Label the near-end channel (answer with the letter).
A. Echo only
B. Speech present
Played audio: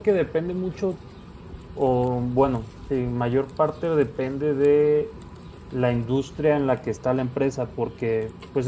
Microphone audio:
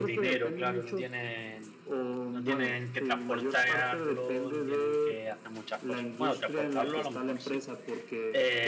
B